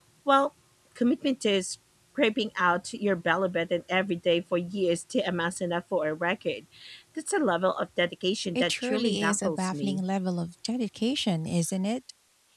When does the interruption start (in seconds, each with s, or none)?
8.6 s